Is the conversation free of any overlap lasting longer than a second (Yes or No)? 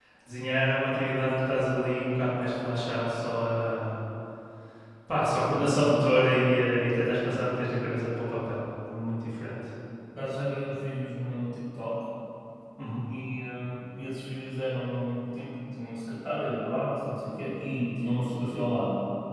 Yes